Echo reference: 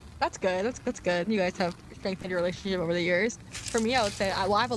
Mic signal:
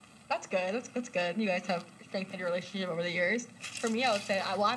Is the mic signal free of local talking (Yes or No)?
Yes